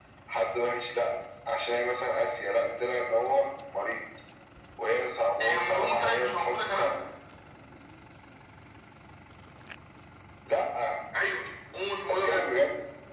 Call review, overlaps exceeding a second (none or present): present